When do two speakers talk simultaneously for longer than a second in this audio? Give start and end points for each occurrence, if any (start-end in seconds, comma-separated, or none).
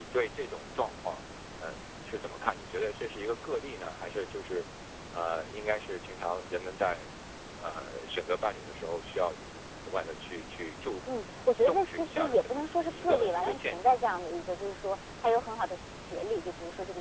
11.7-14.0